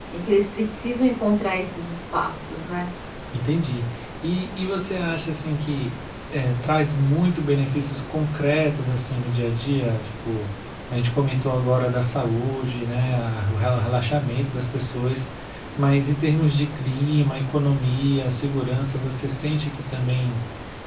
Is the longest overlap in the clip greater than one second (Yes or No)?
No